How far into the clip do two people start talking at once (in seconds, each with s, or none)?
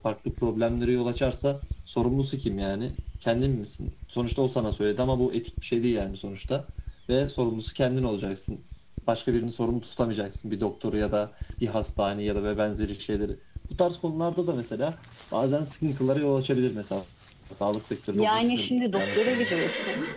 18.1 s